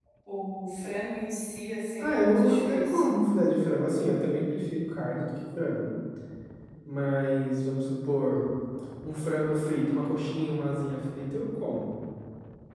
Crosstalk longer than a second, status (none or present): present